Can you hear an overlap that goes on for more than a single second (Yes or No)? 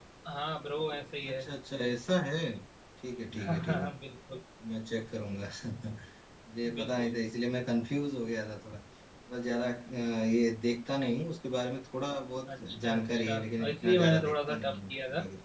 Yes